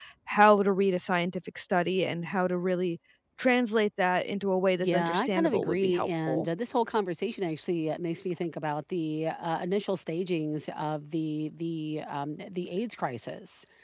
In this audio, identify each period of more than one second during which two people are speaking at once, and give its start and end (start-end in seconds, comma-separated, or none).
4.8-6.5